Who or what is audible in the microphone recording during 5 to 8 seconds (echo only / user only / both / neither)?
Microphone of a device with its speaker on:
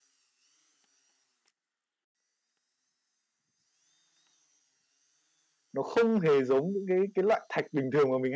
user only